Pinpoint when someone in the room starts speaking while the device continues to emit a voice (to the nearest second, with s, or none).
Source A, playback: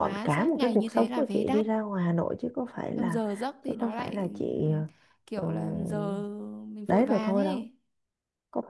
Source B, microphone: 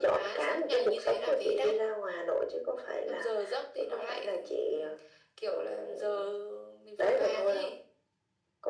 none